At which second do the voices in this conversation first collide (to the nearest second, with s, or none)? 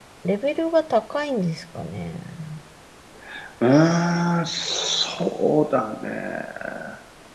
none